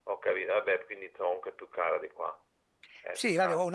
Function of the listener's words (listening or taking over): taking over